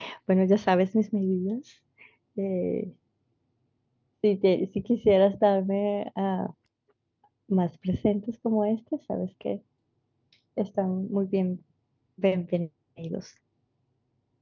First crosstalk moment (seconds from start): none

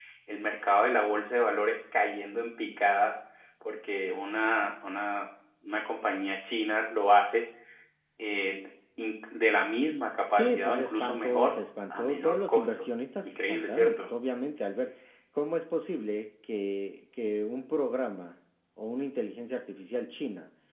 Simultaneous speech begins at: 10.3 s

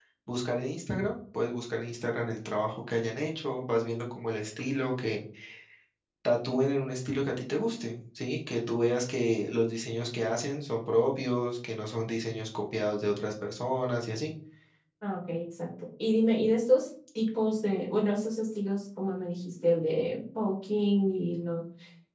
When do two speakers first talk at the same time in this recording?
none

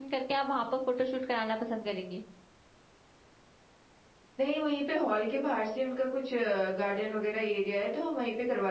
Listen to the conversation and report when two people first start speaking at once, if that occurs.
none

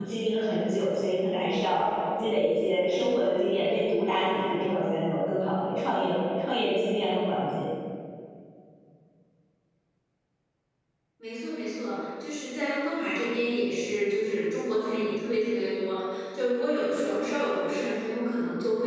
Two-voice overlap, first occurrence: none

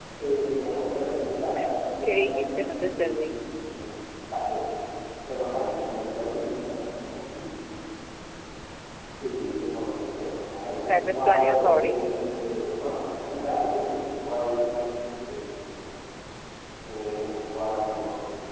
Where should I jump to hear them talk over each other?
2.0 s

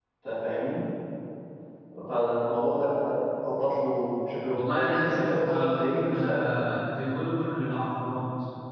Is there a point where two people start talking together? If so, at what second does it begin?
4.5 s

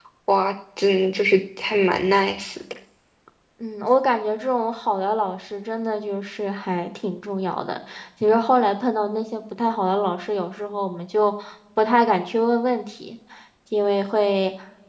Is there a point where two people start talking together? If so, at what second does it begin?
none

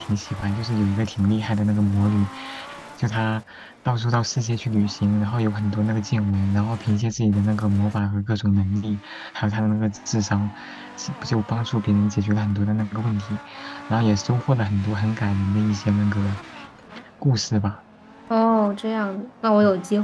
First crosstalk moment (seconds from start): none

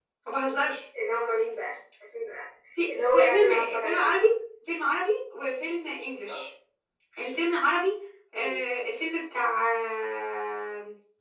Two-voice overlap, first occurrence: 2.9 s

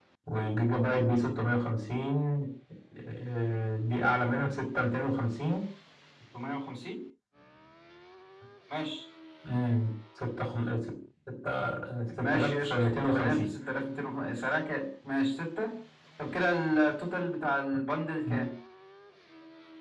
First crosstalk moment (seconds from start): 12.2 s

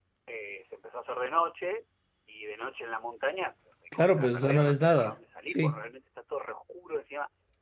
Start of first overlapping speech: 3.9 s

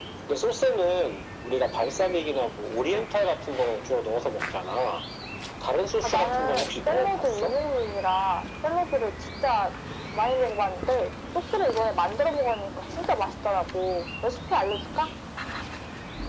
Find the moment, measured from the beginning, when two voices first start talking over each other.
6.0 s

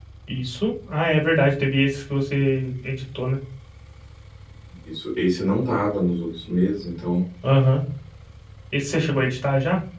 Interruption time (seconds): none

